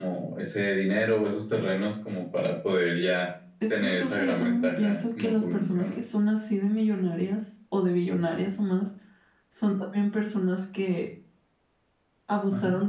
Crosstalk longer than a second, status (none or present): present